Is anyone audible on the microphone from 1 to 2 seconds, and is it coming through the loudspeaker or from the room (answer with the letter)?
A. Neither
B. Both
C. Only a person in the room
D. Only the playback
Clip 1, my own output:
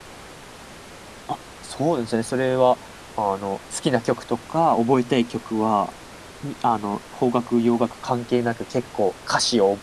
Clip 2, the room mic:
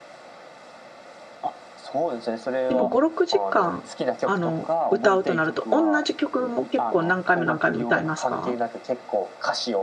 D